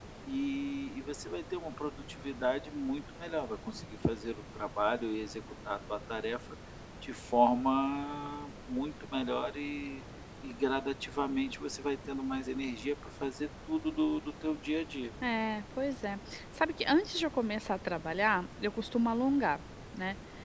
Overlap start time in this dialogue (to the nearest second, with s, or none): none